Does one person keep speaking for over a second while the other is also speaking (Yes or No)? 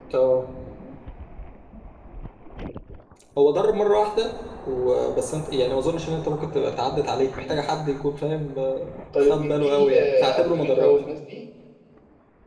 Yes